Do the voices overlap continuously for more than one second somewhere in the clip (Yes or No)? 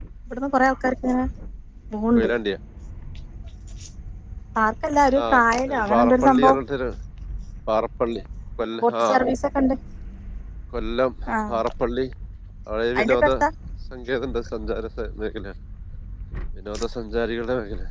Yes